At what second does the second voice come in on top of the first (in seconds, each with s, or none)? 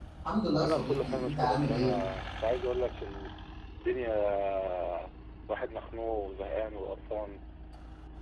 0.6 s